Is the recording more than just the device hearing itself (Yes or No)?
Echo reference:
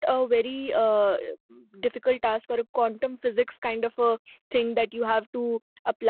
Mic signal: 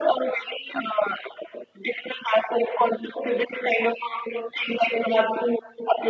No